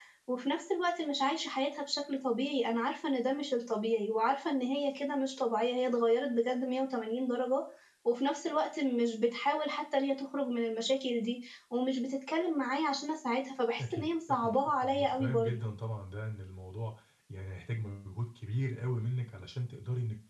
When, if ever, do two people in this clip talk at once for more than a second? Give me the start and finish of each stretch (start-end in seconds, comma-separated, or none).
13.8-15.5